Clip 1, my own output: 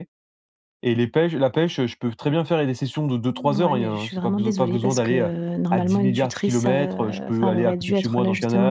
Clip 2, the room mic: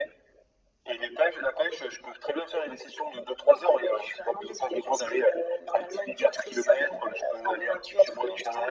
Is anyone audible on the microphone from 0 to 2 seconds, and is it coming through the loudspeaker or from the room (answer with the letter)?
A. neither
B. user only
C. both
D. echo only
D